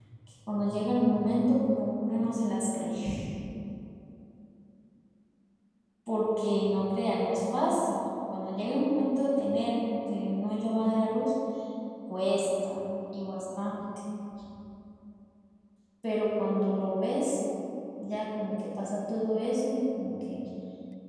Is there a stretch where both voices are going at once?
No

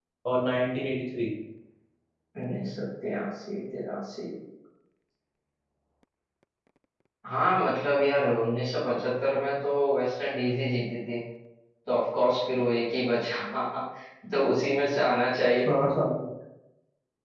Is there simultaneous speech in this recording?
No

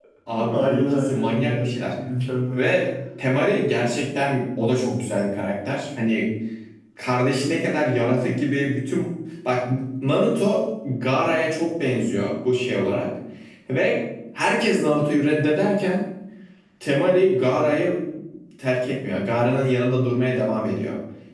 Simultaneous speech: Yes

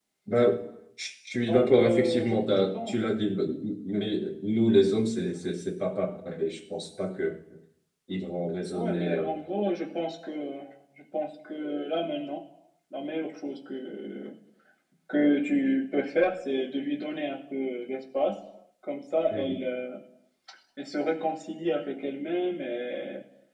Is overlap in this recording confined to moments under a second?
No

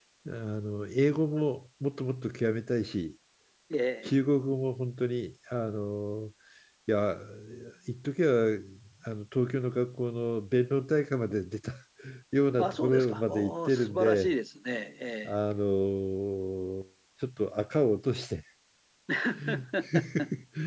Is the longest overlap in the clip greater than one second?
Yes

